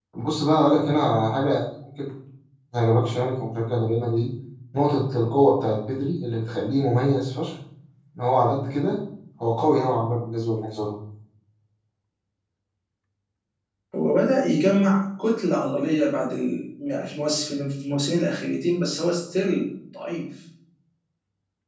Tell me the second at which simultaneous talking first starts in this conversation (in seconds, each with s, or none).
none